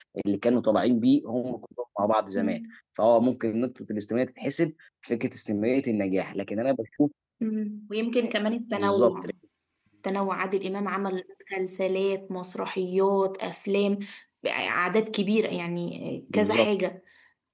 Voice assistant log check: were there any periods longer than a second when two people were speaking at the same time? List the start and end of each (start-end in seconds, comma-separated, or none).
none